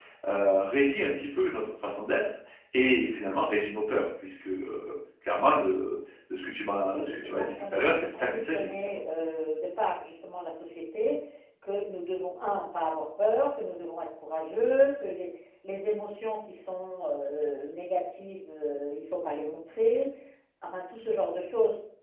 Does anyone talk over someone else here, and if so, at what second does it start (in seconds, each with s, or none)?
6.9 s